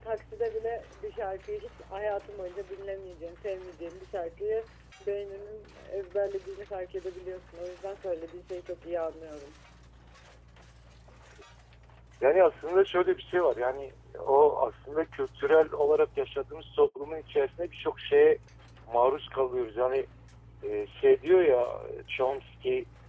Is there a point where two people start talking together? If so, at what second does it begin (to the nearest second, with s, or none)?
none